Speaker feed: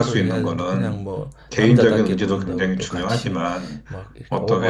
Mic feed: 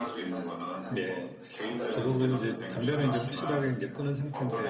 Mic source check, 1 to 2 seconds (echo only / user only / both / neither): both